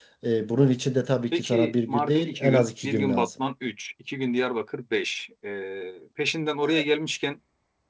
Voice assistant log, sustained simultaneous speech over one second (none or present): present